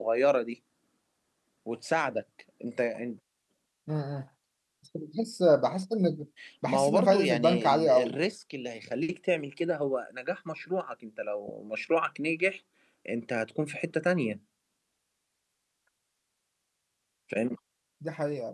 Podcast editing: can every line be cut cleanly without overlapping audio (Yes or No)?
No